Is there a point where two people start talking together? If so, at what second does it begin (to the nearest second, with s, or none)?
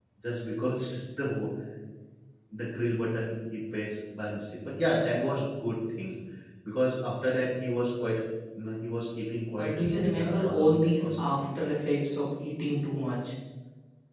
10 s